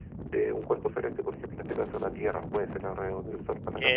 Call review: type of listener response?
taking over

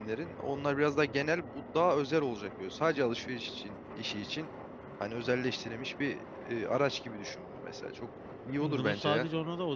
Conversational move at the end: taking over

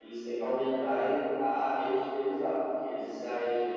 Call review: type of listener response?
listening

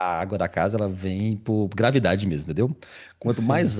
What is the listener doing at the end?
listening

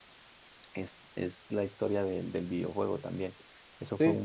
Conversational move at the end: listening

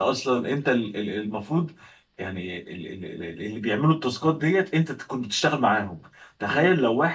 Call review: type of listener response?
listening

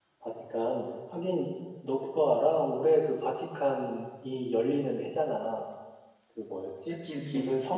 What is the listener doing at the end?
listening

